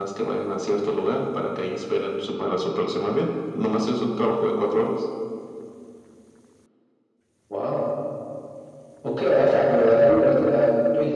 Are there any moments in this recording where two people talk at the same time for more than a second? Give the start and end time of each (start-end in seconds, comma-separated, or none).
none